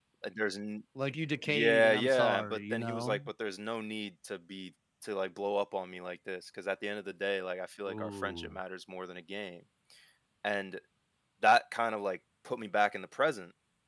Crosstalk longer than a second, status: present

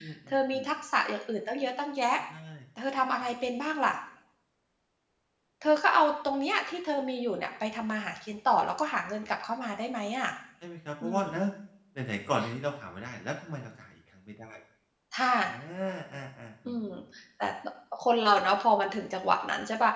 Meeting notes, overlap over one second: none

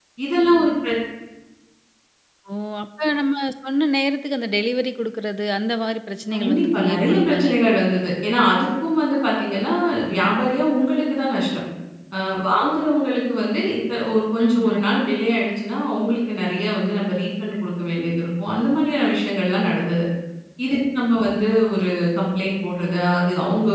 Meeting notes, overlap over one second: present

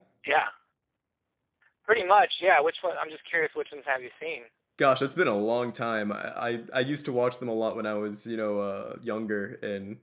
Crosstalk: none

